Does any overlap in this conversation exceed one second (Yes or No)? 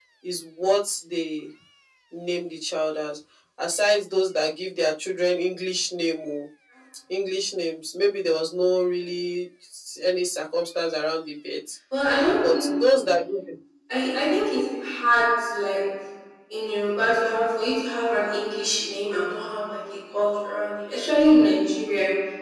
No